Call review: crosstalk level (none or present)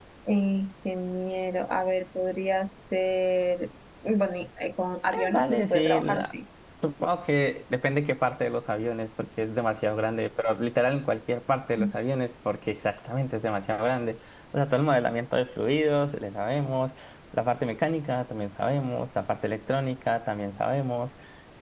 present